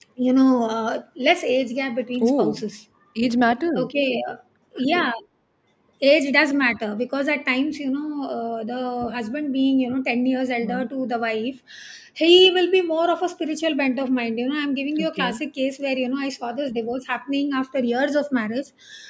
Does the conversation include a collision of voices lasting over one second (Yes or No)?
No